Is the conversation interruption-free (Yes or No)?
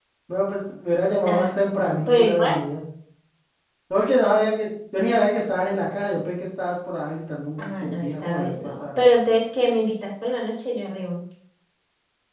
No